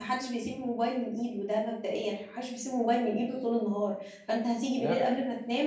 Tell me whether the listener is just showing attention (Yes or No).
Yes